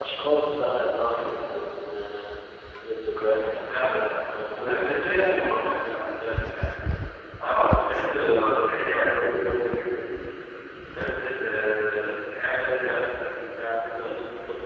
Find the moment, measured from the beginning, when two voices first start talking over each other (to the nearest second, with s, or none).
4 s